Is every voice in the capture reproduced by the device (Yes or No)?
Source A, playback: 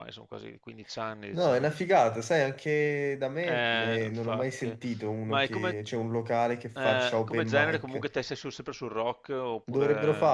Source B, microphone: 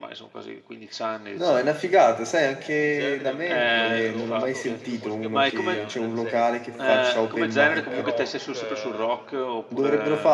No